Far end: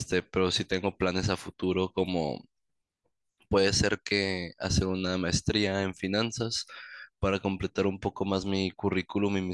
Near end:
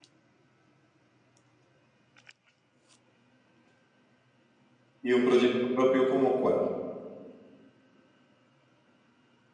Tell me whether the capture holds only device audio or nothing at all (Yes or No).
No